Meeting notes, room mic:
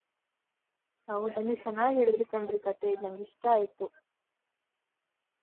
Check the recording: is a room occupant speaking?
Yes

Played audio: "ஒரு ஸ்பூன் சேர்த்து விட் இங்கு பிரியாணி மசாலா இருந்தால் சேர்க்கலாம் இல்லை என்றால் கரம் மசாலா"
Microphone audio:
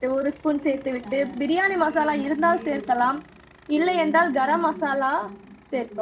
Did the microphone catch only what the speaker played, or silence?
No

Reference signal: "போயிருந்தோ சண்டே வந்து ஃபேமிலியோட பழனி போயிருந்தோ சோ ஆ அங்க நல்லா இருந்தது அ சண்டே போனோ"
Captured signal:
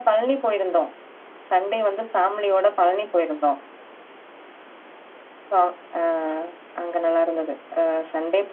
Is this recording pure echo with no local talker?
Yes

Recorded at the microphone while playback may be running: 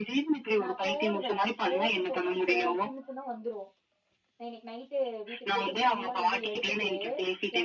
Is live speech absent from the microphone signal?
No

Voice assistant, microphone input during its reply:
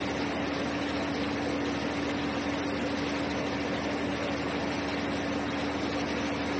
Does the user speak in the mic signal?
No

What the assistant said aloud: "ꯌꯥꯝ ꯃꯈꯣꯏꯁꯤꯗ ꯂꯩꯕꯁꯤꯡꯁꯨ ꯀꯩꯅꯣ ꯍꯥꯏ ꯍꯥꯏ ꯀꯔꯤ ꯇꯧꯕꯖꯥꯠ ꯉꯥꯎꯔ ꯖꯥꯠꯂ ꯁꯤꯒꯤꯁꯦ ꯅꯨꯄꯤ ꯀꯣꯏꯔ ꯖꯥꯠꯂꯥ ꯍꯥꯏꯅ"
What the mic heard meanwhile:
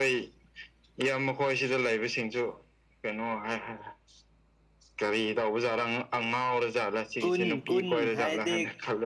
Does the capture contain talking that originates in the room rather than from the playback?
Yes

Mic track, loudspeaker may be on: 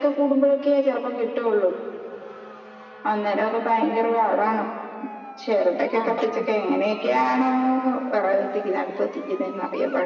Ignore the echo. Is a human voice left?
Yes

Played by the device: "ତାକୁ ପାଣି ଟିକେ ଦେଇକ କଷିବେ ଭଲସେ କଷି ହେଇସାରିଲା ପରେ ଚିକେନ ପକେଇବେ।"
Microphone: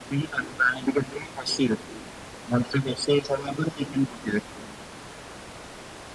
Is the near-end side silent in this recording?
Yes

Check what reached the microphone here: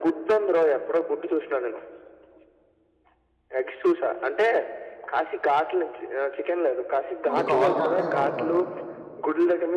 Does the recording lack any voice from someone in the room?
No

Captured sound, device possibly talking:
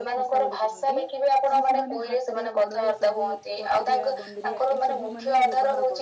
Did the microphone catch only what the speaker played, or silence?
No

